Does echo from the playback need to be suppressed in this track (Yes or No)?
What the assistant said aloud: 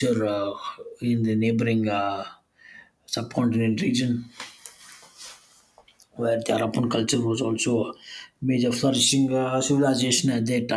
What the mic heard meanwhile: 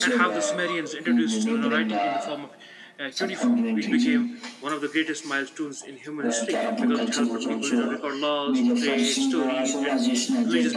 Yes